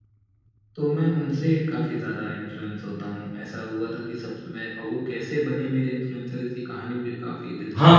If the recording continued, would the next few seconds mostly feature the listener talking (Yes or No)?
Yes